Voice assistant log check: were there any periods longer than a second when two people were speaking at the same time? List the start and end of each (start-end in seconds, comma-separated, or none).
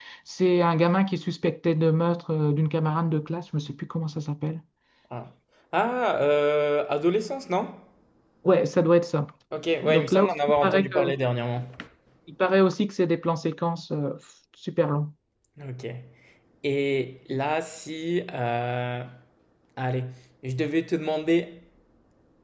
9.8-11.1